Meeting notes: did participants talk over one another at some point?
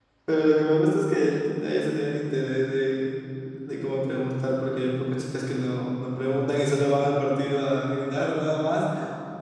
No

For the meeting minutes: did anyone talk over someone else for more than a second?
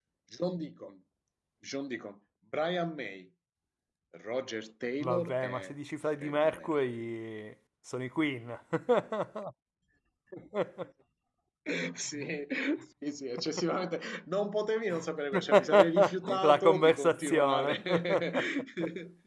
Yes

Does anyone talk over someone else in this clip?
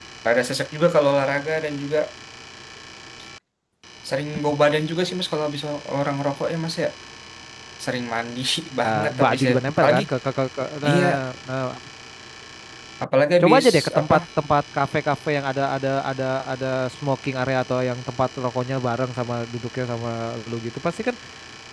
Yes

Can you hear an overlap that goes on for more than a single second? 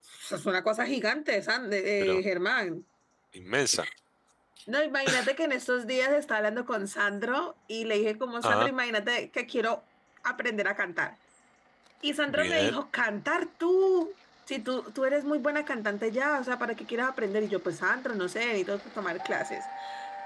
No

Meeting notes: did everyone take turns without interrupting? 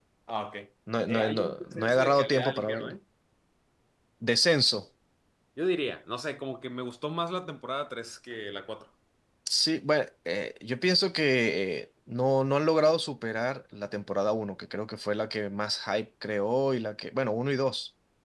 No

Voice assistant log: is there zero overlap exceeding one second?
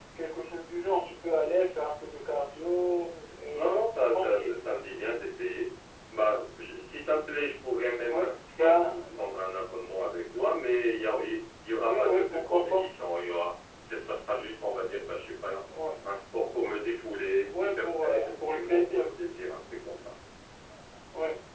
No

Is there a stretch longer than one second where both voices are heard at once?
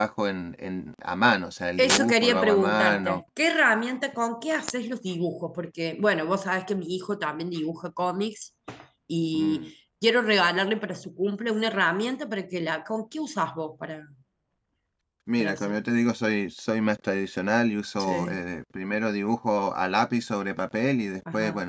Yes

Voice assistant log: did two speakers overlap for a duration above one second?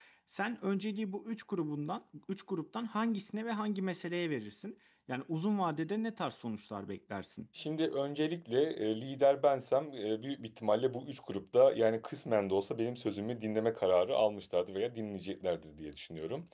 No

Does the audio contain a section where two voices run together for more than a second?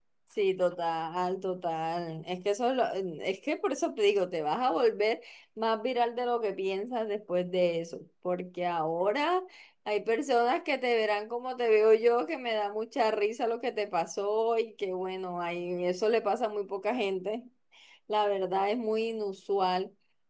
No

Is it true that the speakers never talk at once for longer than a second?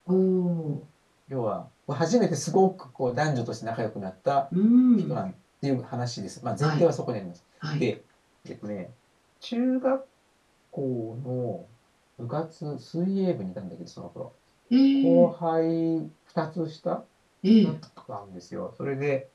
Yes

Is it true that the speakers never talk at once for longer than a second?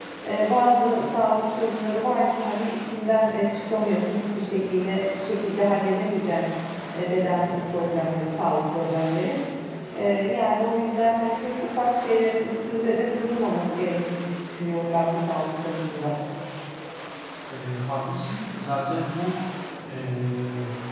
Yes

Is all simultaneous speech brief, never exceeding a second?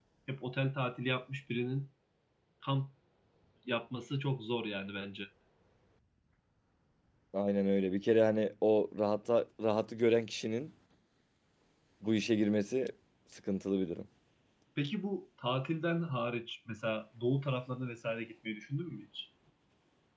Yes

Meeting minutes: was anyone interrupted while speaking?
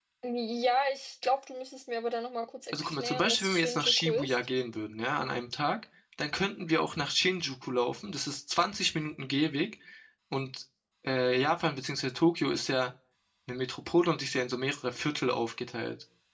Yes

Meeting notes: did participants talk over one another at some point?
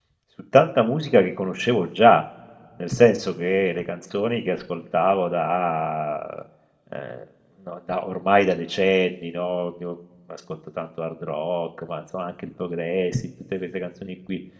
No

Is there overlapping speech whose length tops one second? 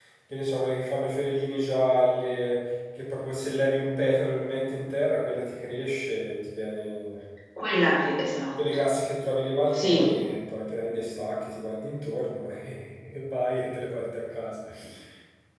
No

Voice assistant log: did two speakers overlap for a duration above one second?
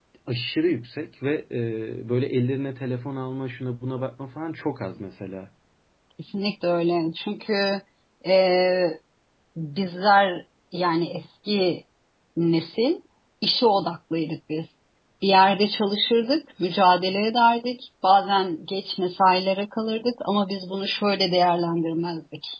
No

